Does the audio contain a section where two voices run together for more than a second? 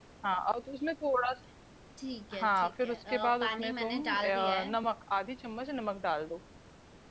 Yes, from 2.4 s

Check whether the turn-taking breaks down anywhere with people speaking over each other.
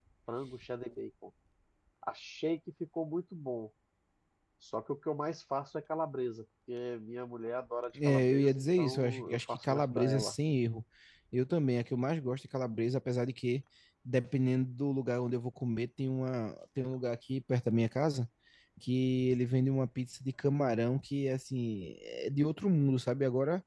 Yes, from 8.0 s

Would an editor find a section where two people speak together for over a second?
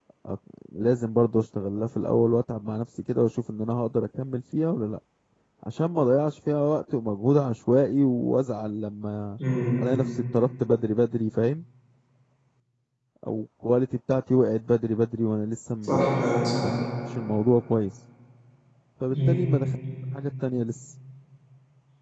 No

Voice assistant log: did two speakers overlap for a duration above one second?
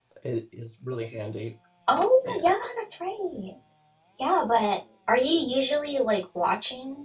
No

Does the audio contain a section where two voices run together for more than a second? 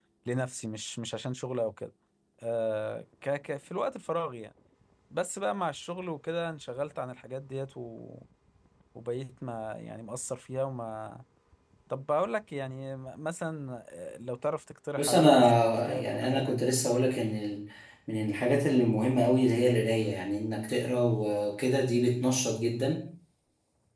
Yes, from 15.0 s

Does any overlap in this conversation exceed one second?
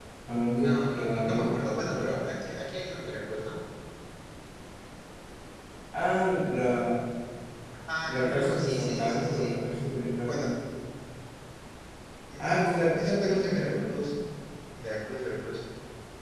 Yes, from 0.5 s

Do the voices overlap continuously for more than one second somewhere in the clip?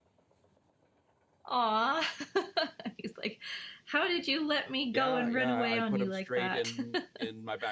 Yes, from 4.9 s

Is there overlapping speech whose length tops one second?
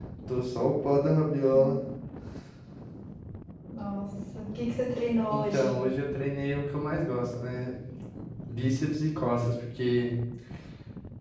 No

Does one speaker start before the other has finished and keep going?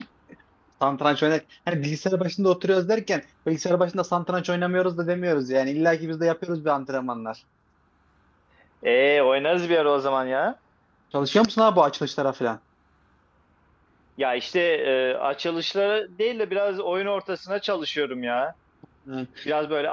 No

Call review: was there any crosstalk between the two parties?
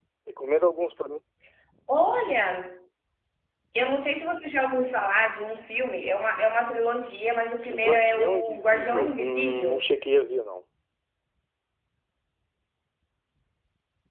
Yes, from 7.7 s

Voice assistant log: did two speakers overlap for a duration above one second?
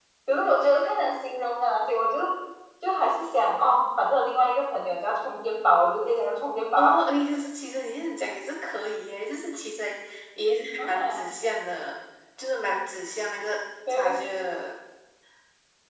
No

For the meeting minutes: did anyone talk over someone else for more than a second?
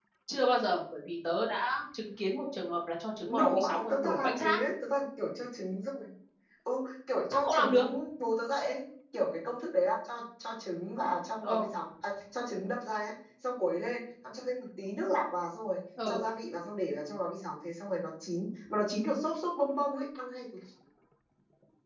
Yes, from 3.3 s

